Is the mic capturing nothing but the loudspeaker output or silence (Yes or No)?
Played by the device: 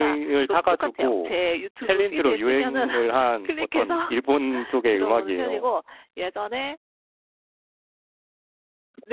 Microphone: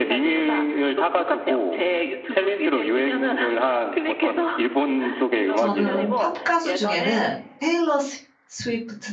No